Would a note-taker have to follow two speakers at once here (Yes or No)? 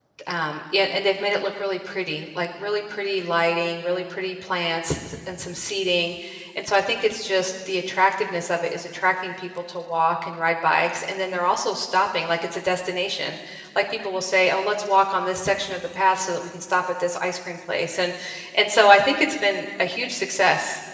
No